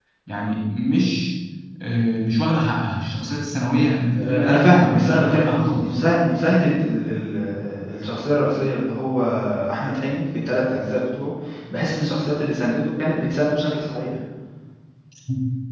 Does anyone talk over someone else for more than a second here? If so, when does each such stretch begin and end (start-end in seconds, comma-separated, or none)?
4.2-6.0